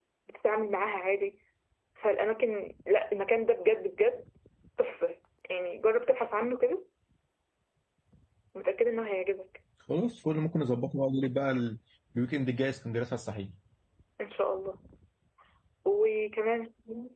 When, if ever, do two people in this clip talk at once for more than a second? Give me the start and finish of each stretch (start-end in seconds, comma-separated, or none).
none